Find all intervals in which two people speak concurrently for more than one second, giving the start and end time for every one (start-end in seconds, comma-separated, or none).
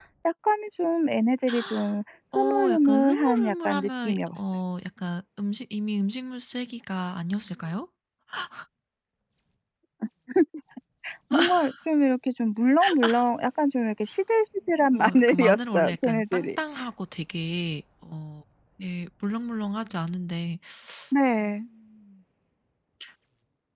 2.4-4.4, 14.9-16.6